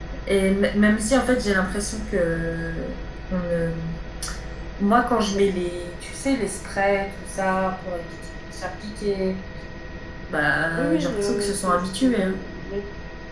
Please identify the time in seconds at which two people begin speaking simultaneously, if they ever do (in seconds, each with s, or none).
10.8 s